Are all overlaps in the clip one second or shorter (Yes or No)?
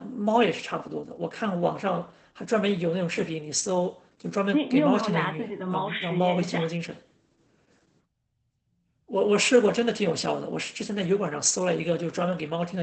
No